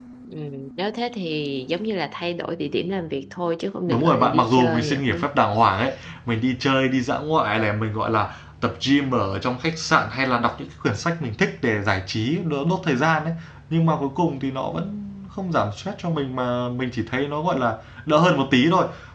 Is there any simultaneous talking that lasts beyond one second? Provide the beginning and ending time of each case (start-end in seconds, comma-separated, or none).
3.9-5.3